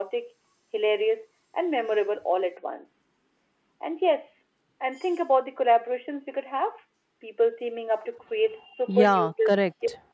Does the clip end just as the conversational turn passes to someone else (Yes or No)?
Yes